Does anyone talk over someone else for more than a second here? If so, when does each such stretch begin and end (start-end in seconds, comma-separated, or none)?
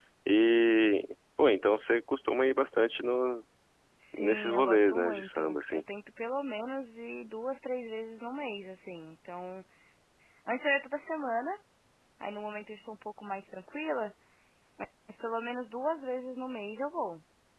4.2-5.8